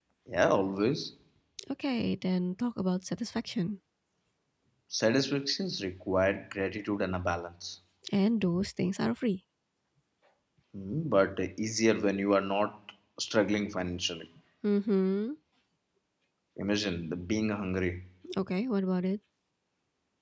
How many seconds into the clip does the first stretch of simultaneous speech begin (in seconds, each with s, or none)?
none